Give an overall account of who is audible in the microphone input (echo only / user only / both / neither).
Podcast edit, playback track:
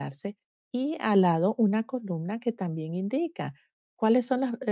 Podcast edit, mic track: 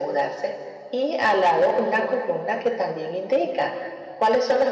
echo only